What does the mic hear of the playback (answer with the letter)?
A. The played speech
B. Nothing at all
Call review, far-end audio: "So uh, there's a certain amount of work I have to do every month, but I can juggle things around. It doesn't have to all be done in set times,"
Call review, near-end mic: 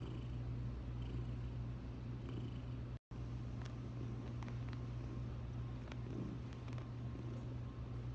B